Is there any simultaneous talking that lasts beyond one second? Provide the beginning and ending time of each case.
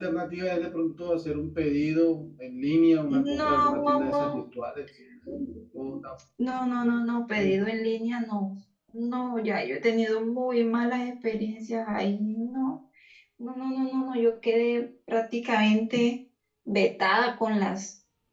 3.1-4.4

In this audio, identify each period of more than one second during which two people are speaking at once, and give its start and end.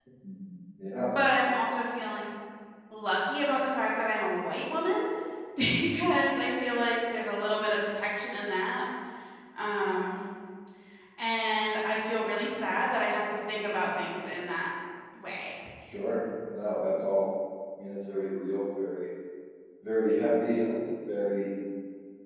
none

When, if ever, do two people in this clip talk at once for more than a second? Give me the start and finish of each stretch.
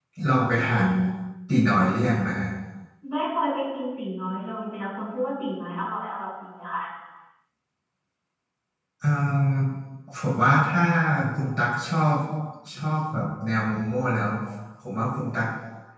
none

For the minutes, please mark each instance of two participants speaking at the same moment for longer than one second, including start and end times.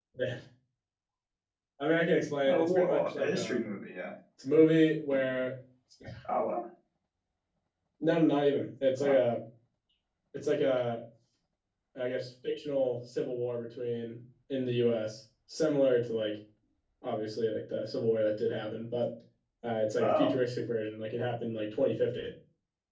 2.5-3.7

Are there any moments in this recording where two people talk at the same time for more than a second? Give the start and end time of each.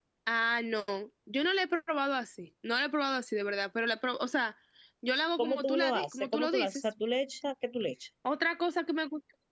5.4-6.8

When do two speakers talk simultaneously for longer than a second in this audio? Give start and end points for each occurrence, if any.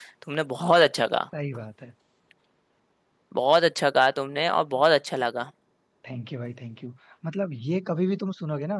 none

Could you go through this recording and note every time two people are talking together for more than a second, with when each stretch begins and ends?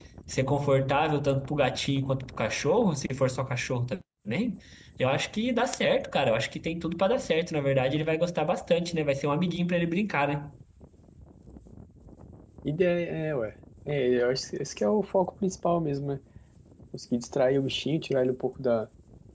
none

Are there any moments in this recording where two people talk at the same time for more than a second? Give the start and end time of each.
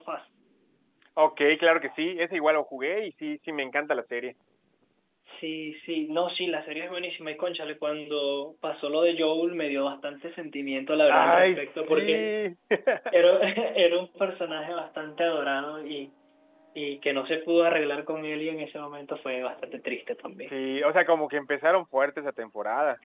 11.1-12.3

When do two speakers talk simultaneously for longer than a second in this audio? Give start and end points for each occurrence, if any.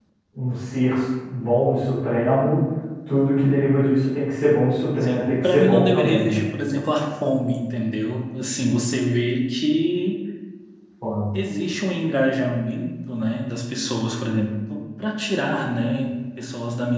5.0-6.4

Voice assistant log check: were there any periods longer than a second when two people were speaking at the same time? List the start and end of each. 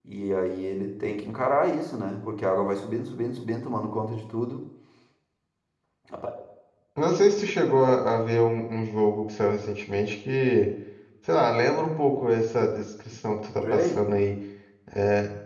none

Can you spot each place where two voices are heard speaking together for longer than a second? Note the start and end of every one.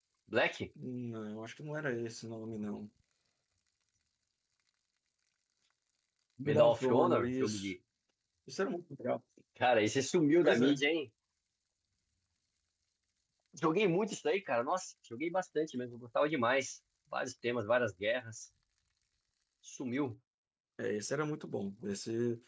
6.5-7.7

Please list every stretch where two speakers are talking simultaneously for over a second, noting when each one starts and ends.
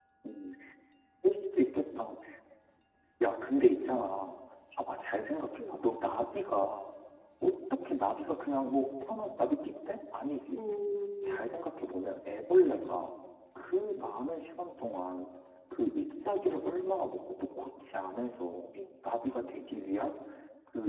none

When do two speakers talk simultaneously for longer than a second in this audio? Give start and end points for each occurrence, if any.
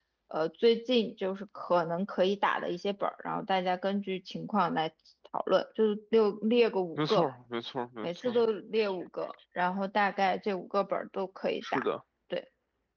none

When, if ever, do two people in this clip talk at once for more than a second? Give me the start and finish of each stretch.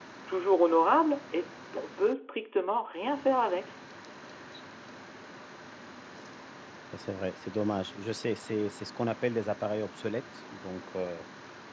none

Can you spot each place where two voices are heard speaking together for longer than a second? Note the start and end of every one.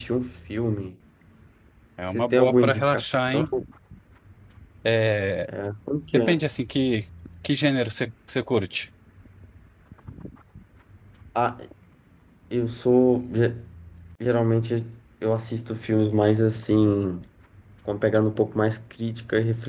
2.1-3.4

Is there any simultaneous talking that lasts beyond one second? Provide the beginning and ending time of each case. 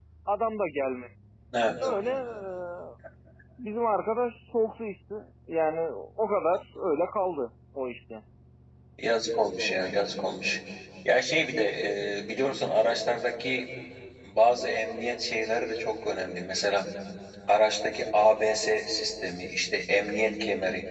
none

